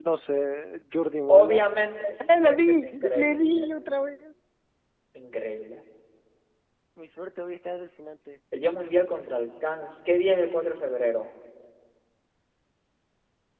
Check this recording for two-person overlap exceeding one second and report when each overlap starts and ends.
2.4-3.7

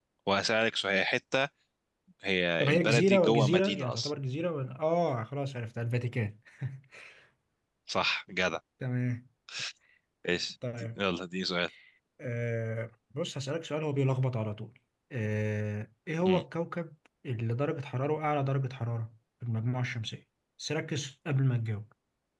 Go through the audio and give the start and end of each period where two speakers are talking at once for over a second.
2.6-4.1

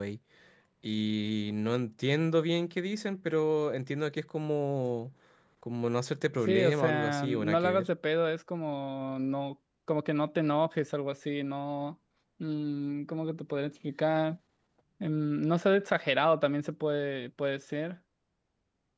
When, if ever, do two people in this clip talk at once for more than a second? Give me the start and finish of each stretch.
6.4-7.9

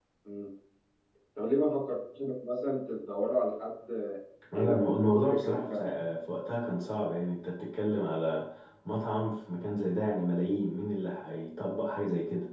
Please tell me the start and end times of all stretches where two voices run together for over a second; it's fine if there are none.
4.5-5.9

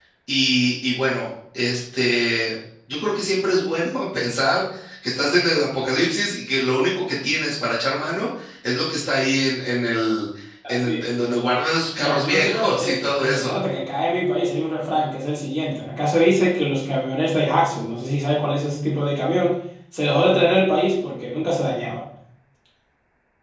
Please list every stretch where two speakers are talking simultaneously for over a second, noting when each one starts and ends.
12.0-13.6

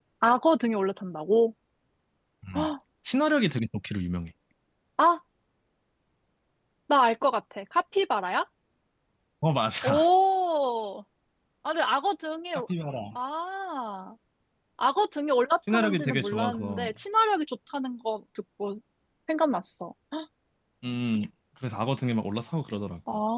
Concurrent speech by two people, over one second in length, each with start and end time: 15.7-16.9

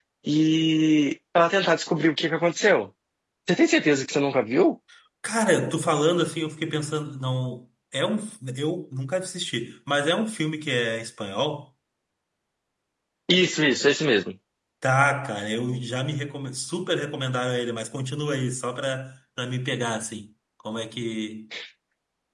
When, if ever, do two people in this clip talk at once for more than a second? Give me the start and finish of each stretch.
none

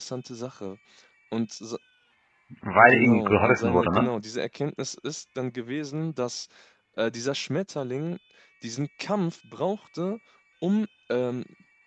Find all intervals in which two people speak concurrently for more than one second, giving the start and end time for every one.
2.9-4.1

